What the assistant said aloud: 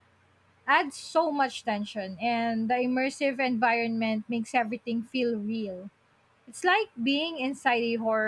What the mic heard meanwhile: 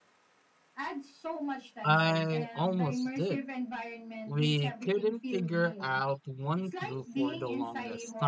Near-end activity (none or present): present